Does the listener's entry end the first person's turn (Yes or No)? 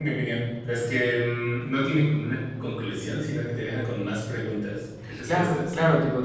Yes